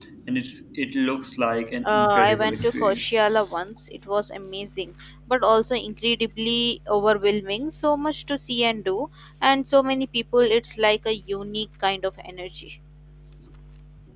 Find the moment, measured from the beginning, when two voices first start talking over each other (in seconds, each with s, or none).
1.8 s